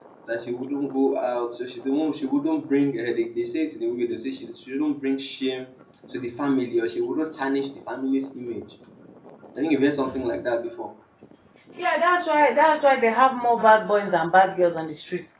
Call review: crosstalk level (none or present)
none